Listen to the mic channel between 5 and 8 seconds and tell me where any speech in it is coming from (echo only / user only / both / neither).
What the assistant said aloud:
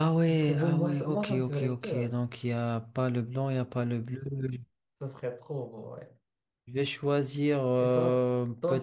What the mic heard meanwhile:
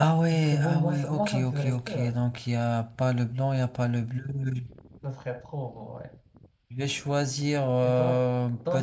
echo only